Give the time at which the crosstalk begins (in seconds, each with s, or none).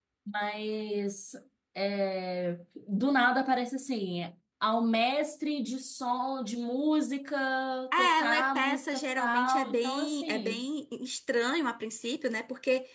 8.0 s